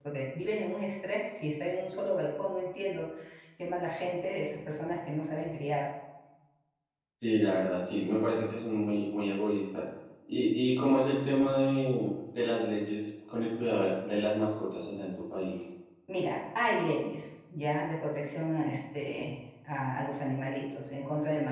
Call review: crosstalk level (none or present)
none